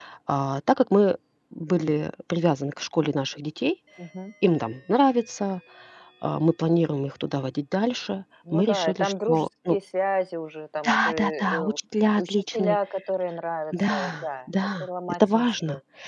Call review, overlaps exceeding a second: present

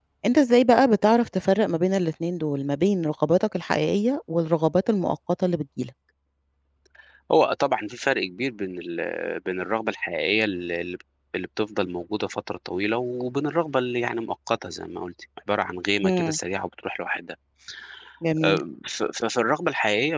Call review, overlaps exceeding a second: none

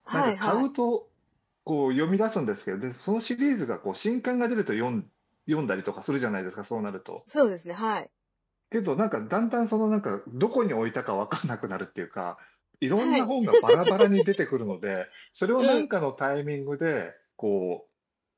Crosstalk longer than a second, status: none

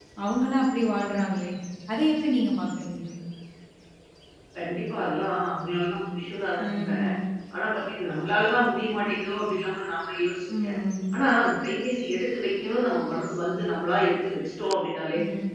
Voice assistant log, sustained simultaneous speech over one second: none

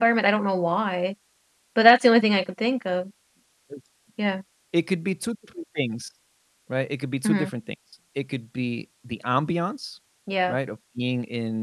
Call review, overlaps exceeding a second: none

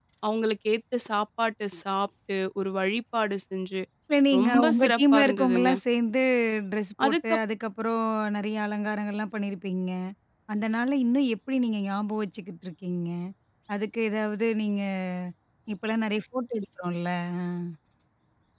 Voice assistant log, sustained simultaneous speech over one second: present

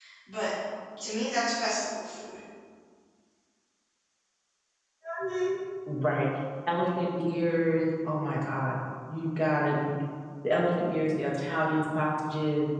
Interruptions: none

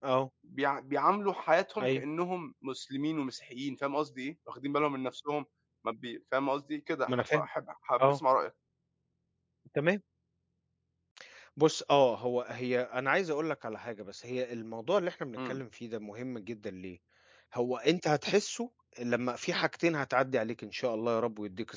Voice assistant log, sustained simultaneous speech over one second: none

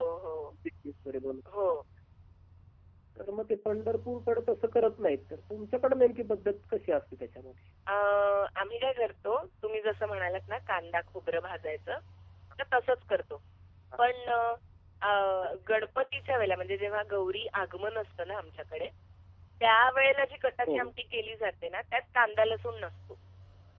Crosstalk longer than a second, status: none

